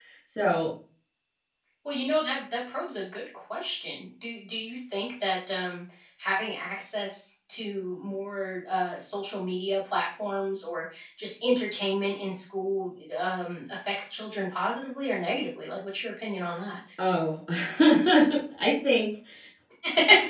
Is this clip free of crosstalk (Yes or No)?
Yes